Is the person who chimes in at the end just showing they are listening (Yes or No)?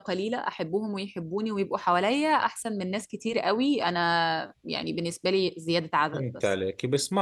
No